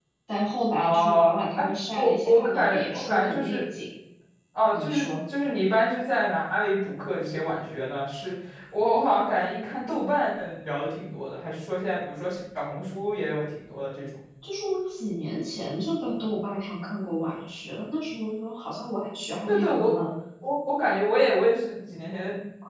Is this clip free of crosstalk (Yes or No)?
No